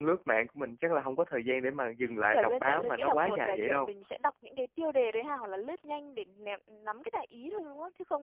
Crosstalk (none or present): present